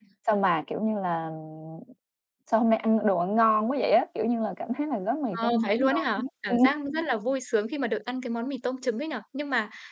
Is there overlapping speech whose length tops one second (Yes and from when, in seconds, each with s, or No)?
Yes, from 5.3 s